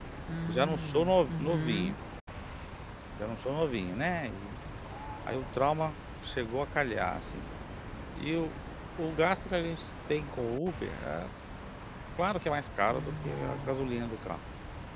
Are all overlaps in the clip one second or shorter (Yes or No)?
No